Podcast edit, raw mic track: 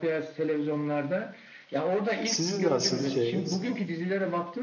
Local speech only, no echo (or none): Sizin nasıl şeyiniz?